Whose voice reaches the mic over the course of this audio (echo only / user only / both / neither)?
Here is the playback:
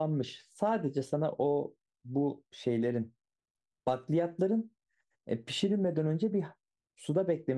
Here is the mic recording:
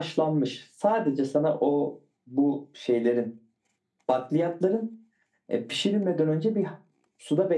echo only